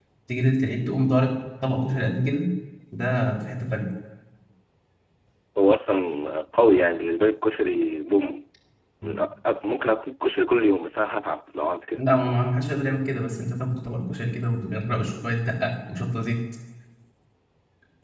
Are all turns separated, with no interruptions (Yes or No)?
Yes